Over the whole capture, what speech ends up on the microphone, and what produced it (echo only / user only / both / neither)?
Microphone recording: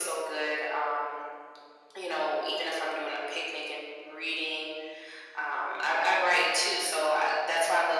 echo only